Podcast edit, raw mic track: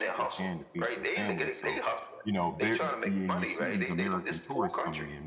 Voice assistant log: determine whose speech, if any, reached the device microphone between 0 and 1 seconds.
both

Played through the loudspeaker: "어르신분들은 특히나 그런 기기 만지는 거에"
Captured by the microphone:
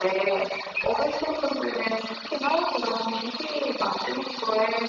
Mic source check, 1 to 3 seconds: echo only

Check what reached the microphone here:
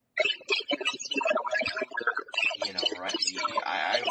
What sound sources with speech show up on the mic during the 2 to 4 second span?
both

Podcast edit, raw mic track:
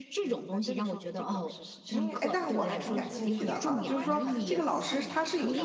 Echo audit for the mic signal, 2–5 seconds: both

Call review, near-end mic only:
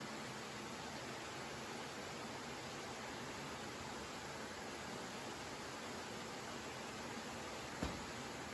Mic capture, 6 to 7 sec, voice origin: neither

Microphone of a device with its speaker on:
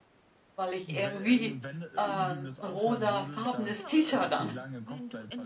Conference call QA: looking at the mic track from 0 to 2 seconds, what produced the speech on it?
both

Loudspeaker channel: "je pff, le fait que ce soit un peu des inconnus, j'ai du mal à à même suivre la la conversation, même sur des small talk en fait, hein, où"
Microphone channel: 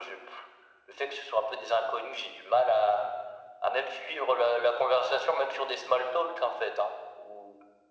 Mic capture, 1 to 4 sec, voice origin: echo only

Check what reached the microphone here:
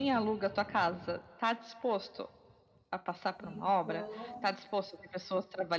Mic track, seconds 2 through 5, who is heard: both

